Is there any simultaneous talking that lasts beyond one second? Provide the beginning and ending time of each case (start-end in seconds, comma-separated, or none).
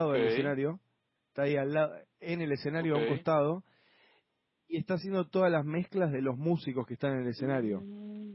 none